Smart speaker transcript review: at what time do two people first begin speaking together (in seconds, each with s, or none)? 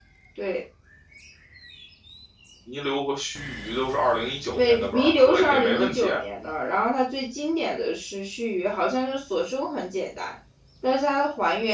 4.5 s